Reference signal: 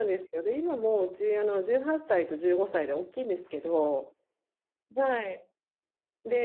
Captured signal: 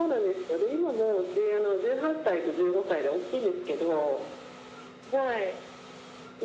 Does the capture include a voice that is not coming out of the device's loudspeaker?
No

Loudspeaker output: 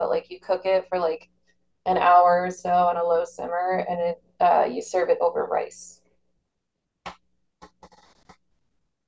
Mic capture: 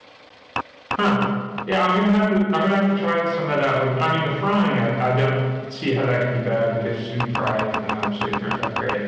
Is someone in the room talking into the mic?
Yes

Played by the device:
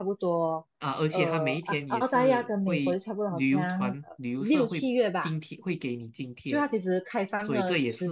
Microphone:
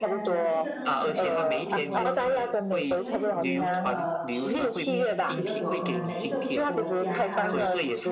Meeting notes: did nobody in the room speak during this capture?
No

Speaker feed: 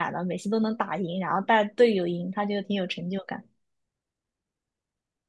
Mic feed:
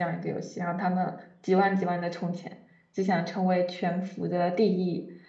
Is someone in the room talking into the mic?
Yes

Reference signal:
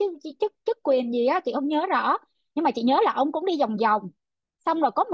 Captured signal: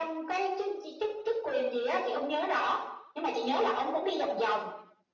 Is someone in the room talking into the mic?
No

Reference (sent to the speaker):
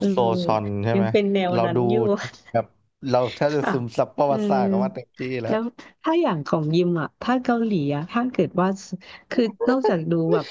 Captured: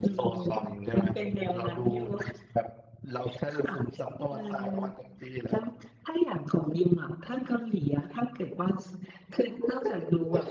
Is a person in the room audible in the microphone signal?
No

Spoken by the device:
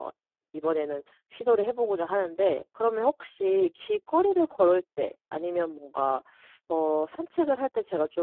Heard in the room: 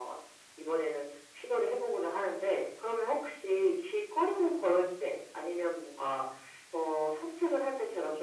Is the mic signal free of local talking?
Yes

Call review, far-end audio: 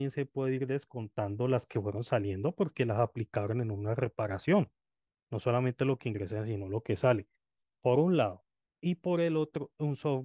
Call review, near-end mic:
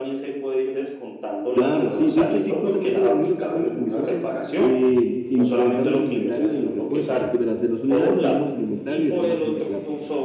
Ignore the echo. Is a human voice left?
Yes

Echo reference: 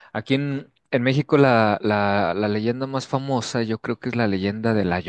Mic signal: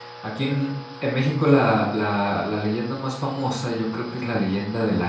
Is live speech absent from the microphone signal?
Yes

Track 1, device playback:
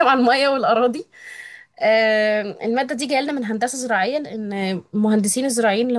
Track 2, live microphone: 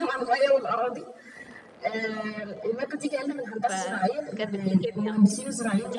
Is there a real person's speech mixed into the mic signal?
Yes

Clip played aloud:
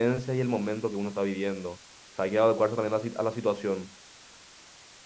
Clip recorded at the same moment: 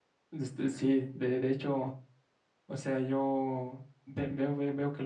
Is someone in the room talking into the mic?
Yes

